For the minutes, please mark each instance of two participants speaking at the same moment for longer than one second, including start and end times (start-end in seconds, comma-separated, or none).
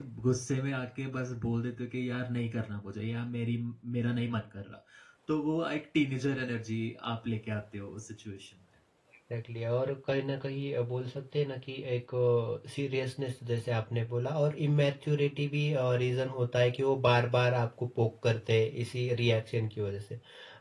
none